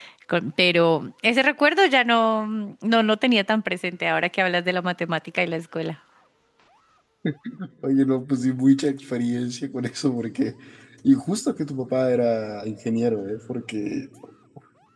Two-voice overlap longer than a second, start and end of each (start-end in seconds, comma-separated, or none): none